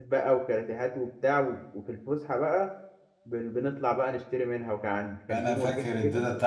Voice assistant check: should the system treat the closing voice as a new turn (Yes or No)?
Yes